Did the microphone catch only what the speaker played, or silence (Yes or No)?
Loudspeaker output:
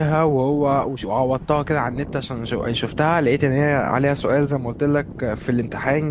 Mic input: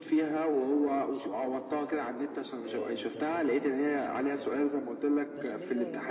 No